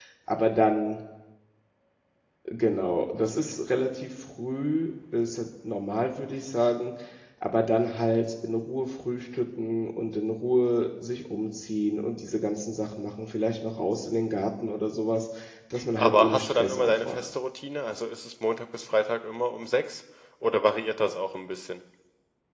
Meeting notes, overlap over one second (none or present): present